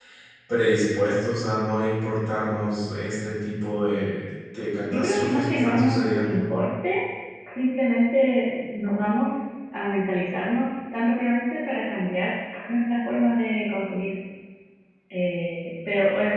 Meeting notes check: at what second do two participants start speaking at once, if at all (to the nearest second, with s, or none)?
5 s